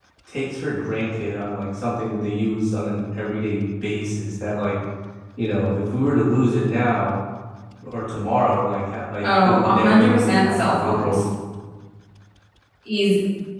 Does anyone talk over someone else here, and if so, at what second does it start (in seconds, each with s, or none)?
9.2 s